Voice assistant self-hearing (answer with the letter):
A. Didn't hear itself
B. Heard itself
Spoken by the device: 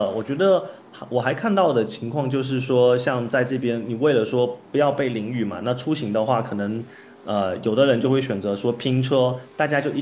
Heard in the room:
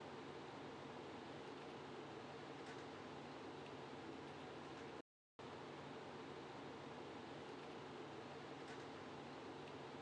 A